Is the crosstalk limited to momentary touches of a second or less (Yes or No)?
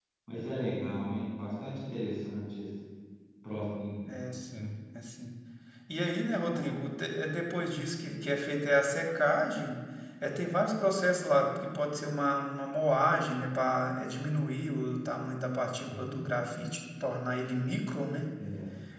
Yes